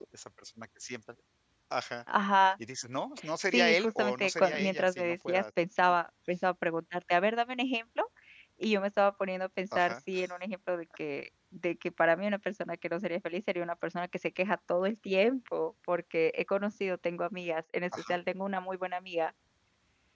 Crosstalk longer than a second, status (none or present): present